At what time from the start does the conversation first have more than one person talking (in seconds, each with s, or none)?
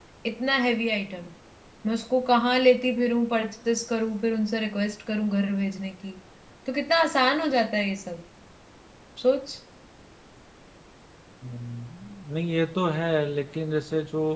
none